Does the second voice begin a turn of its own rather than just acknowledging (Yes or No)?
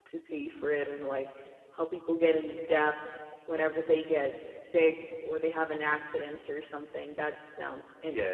Yes